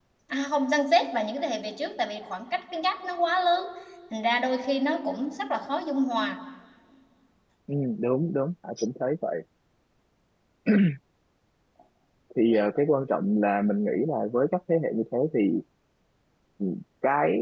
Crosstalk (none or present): none